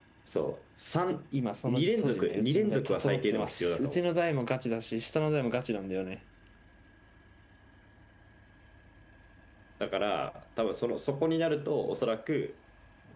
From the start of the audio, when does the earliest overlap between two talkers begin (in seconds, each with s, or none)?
1.7 s